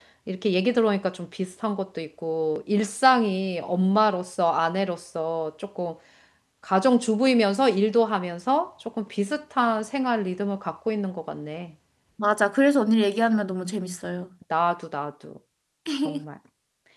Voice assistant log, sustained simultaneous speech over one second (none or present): none